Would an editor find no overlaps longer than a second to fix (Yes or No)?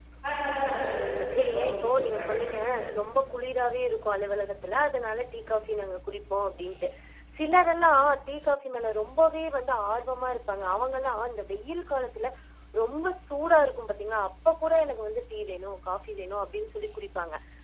No